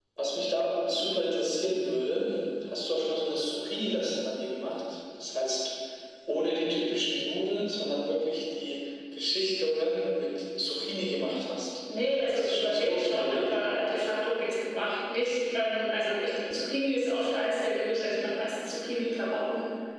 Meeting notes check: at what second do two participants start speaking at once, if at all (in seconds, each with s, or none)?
12.3 s